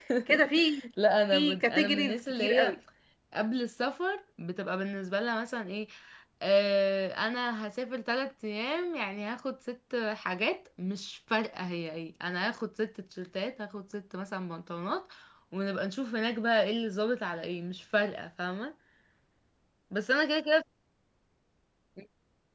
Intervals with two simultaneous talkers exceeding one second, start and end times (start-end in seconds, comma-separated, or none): 1.3-2.8